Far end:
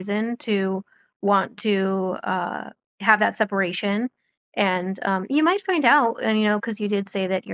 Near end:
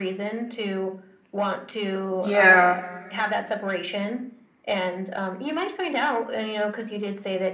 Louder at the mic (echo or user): user